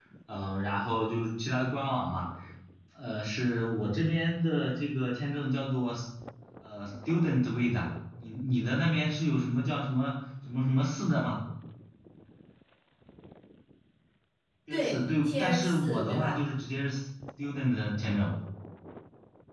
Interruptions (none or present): present